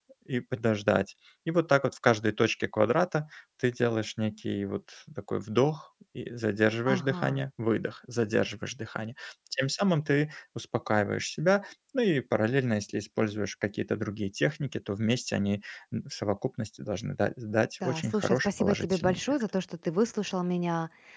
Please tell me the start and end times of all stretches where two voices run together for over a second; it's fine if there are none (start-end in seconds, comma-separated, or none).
17.8-19.3